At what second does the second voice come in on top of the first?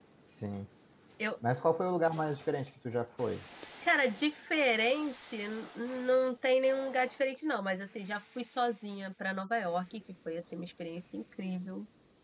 none

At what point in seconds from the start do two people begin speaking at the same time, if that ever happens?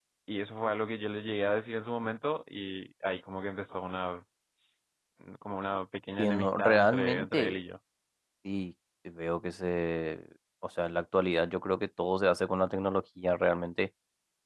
6.2 s

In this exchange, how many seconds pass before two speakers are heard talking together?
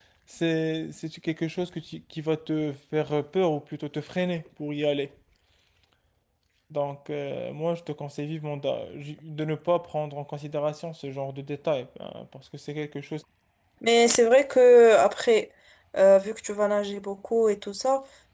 none

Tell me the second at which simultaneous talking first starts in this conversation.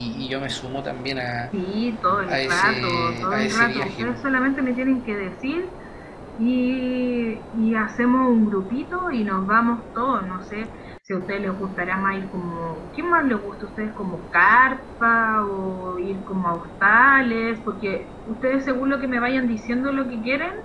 2.3 s

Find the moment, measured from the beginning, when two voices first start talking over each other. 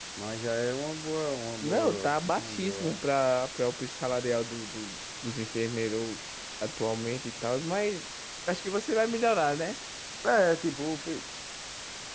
1.6 s

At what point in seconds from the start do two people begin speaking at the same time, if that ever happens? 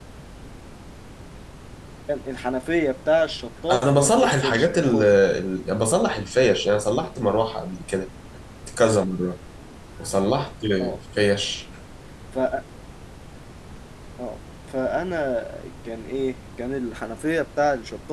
3.7 s

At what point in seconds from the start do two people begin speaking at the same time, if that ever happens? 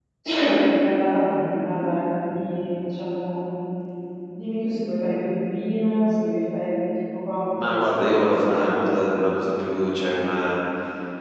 7.5 s

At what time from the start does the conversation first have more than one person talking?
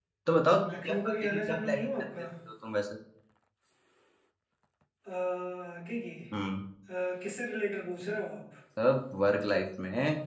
0.8 s

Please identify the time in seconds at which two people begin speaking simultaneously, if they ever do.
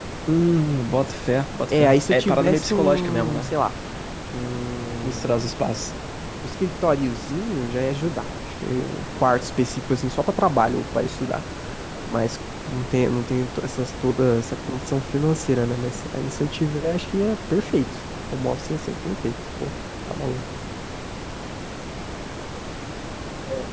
1.7 s

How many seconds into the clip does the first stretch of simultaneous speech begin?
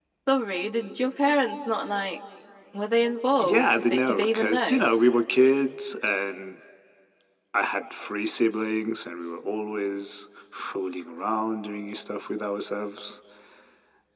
3.4 s

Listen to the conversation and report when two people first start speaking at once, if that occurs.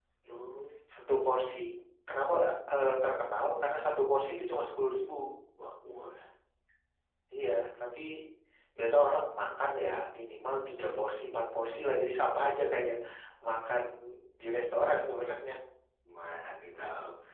none

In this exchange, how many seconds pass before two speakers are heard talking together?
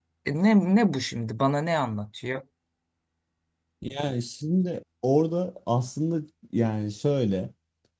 none

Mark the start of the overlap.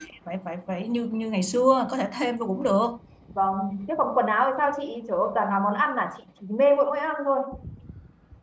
none

